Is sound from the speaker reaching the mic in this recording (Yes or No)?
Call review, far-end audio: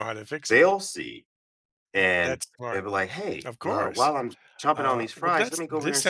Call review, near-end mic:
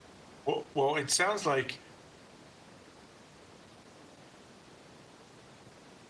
No